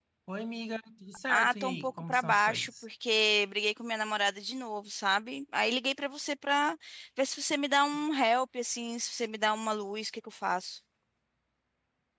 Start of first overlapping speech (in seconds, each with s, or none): 1.3 s